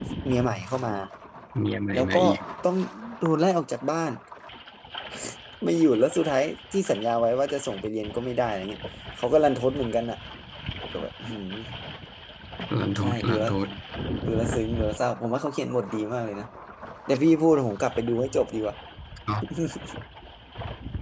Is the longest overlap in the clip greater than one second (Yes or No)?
No